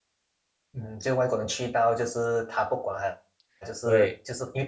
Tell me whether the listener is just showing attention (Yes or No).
Yes